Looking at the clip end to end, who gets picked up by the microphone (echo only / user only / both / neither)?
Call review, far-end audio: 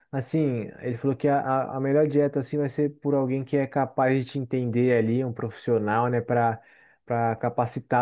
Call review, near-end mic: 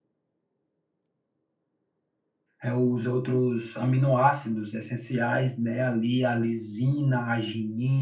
user only